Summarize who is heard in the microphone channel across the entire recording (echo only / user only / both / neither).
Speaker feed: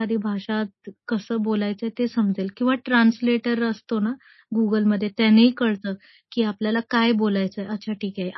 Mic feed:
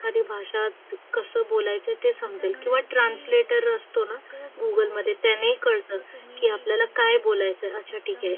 both